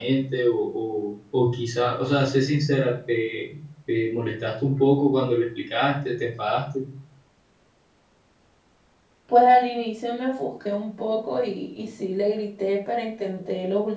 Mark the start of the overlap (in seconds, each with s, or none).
none